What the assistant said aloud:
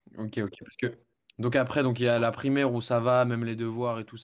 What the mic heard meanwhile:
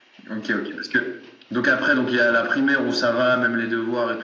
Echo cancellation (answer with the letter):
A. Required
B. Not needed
A